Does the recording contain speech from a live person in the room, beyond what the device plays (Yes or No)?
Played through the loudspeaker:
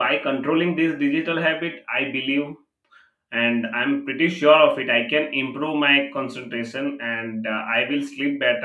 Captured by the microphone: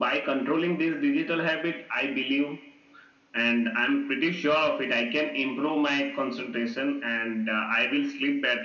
No